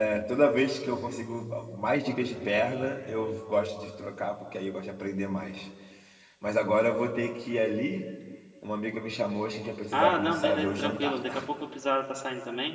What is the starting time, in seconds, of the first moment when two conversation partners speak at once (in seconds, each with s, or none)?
9.9 s